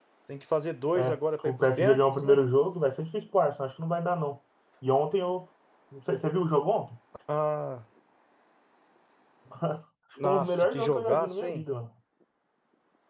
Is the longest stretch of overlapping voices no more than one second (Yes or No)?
No